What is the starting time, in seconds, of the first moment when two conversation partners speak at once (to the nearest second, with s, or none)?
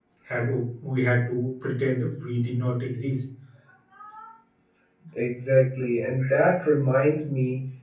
none